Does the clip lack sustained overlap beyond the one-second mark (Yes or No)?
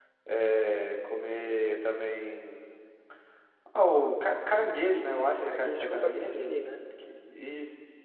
No